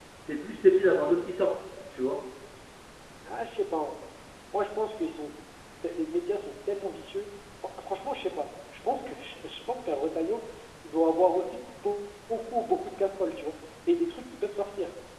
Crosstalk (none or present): none